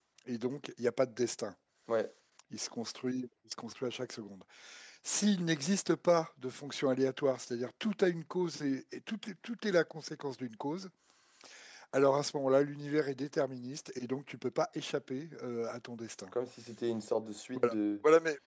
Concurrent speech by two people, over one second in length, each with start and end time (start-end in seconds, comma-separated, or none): none